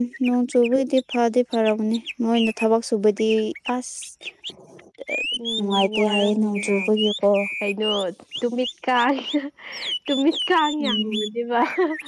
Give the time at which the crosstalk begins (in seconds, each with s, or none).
5.6 s